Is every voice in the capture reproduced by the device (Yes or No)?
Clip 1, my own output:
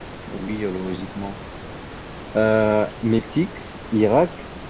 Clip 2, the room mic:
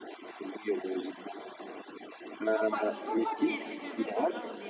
No